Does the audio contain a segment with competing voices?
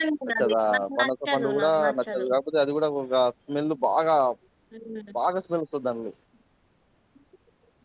Yes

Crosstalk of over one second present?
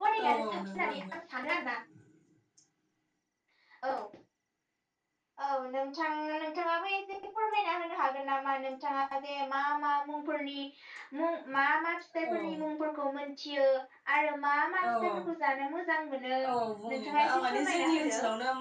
Yes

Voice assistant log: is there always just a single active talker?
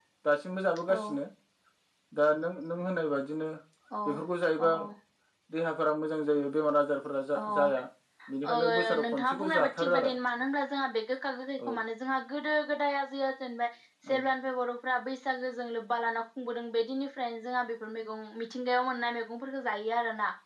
No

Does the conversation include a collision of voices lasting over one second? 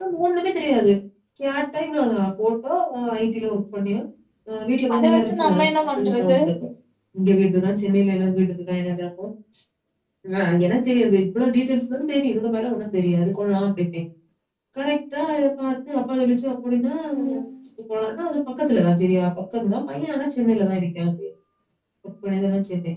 Yes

